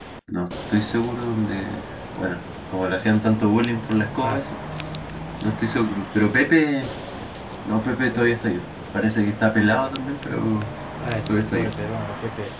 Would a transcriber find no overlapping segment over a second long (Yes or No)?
Yes